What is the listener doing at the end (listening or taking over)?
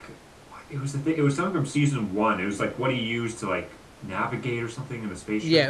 taking over